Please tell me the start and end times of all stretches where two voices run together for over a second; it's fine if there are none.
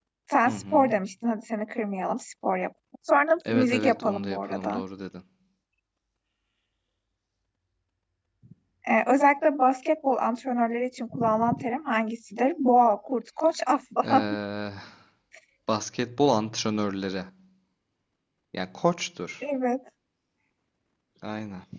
3.5-4.8

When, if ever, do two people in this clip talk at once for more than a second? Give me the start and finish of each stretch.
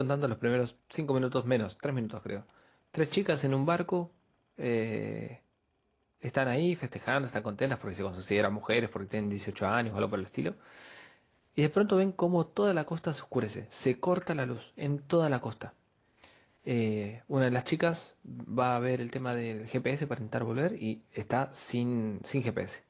none

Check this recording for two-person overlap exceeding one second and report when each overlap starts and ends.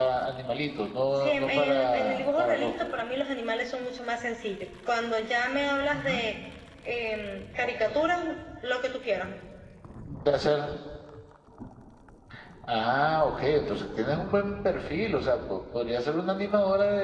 1.2-2.7

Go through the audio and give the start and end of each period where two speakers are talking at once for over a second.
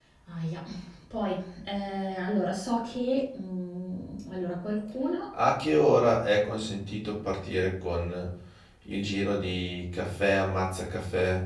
none

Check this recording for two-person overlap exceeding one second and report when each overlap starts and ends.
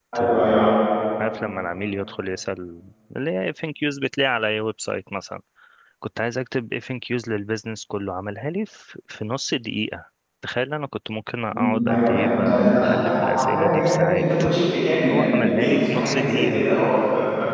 11.5-14.4, 15.1-16.7

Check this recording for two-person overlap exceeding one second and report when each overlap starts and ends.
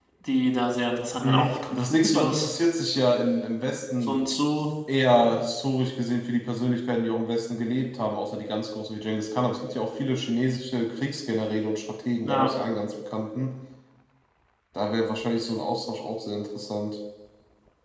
1.2-2.5

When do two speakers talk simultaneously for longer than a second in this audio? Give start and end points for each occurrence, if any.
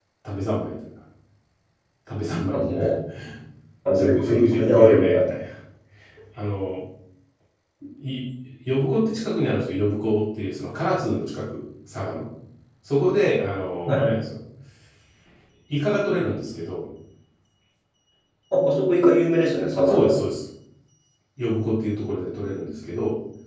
4.0-5.2

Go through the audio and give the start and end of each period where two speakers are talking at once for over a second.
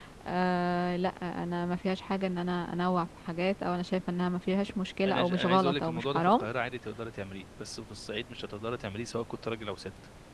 5.1-6.4

